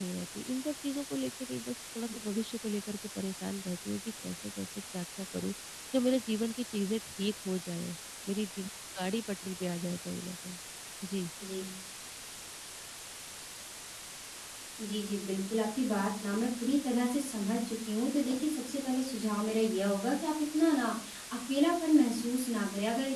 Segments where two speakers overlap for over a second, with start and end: none

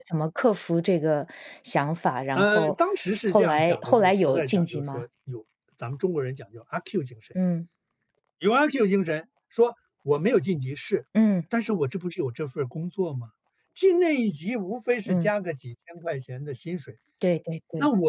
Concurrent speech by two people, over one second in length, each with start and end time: 3.3-5.0

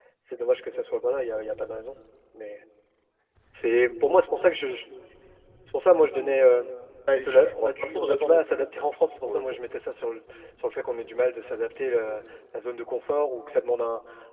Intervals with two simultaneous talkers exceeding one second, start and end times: 7.2-8.6

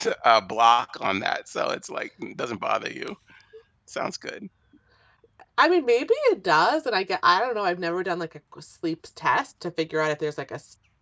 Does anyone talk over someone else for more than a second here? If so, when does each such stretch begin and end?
none

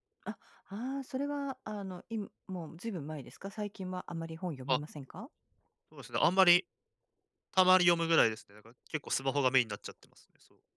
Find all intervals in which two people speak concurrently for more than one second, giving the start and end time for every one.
none

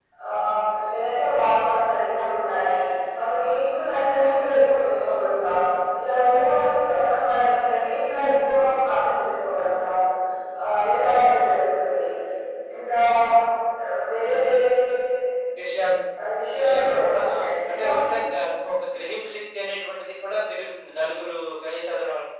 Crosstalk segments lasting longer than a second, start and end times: 16.6-17.9

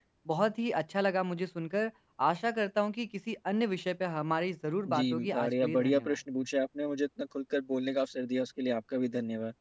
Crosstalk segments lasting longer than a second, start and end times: 4.9-6.1

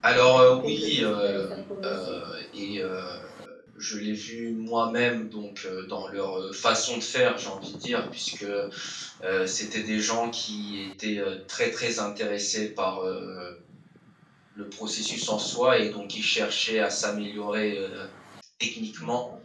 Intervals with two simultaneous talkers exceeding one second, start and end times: 0.6-2.2

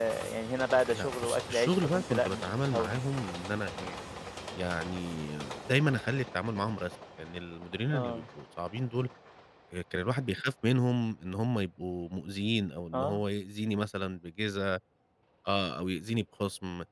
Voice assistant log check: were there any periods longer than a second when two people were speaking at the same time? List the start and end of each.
0.9-3.0

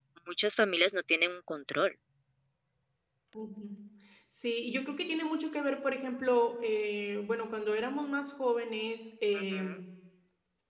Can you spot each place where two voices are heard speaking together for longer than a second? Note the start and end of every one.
none

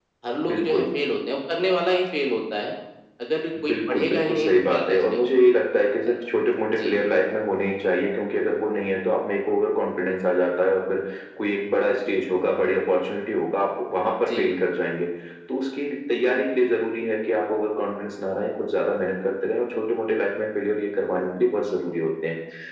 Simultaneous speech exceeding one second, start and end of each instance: 3.7-5.3

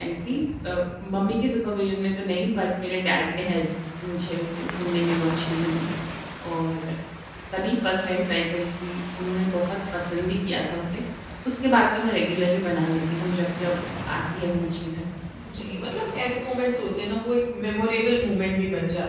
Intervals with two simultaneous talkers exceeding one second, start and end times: none

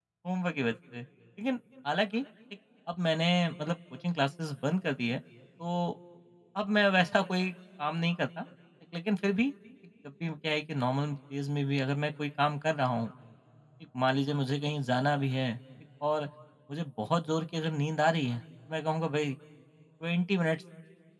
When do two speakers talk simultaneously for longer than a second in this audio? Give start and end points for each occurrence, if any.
none

